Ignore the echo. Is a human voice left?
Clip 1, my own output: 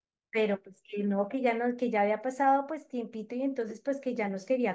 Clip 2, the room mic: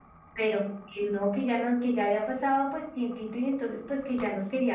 No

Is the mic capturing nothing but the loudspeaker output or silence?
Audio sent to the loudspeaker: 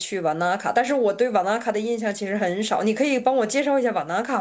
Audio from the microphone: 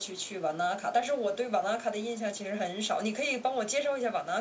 Yes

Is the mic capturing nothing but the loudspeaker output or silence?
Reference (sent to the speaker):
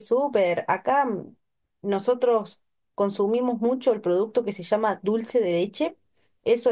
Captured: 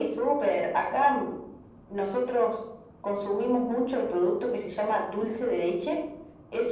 Yes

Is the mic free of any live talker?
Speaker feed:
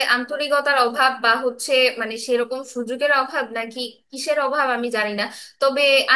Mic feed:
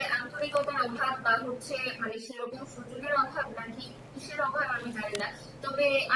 Yes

